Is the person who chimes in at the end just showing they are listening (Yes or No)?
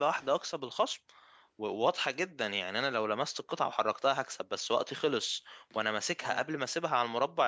Yes